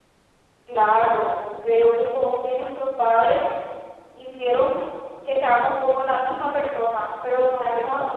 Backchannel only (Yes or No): Yes